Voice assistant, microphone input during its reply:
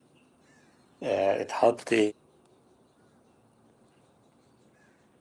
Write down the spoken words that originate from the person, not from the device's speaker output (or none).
آه اتحط